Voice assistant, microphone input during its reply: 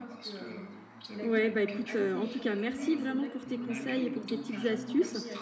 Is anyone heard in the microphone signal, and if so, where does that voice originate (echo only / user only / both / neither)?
both